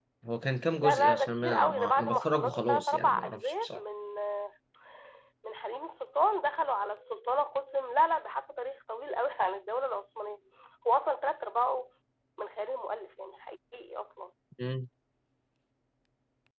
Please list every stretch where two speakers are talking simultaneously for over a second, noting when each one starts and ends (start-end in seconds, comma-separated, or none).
0.8-3.8